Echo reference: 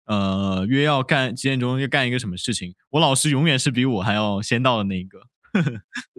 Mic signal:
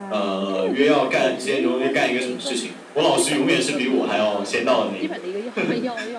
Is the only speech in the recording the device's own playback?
No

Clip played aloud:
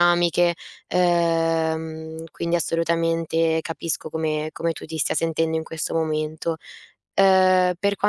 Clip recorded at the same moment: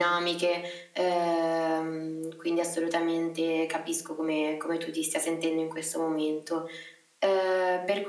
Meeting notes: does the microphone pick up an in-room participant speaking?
No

